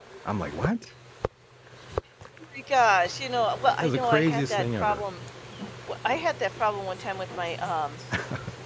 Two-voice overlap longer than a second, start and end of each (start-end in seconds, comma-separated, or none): 3.8-5.0